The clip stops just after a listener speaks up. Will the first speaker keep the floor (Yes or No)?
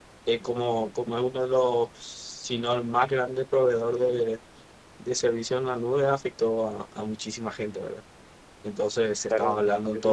No